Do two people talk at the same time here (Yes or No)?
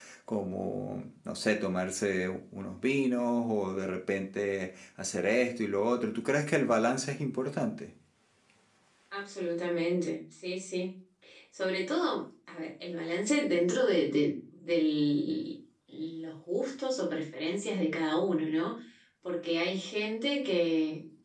No